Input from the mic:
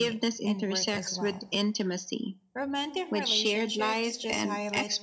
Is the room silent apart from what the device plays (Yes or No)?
No